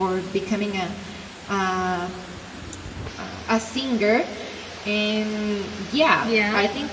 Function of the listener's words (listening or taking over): listening